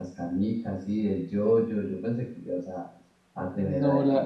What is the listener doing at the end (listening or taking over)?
taking over